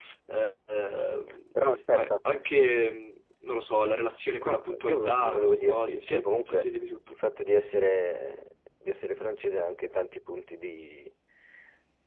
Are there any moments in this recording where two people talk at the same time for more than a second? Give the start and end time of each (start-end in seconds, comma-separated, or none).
4.4-6.7